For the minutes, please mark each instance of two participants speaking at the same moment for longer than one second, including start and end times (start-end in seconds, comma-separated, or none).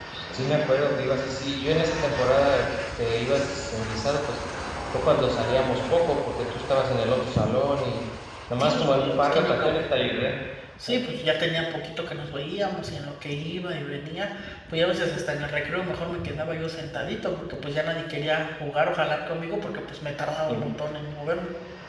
8.6-9.8